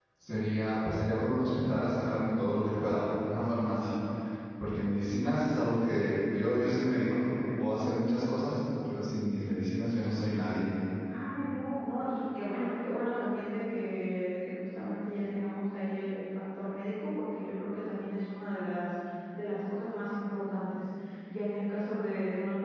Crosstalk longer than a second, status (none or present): none